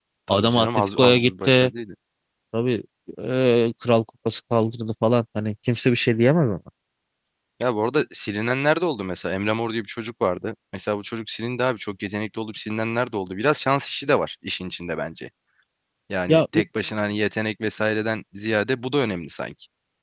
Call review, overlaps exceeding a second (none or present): present